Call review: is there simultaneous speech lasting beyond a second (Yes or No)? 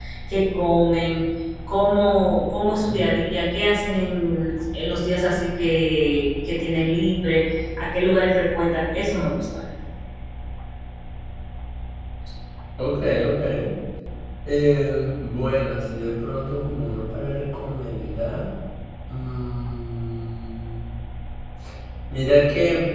No